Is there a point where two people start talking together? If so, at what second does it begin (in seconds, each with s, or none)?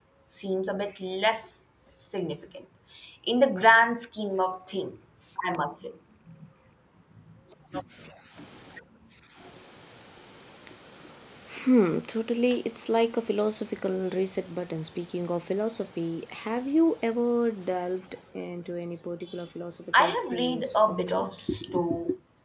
19.9 s